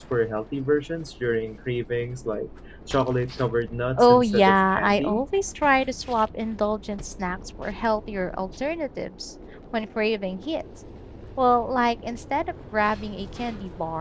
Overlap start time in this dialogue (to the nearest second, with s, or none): 4 s